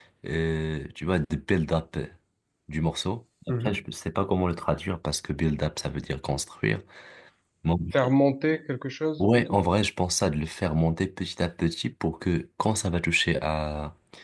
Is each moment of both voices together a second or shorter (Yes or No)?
Yes